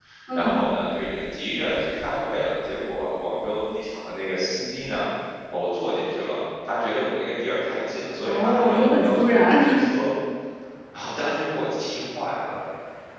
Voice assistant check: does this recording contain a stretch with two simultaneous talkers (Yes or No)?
Yes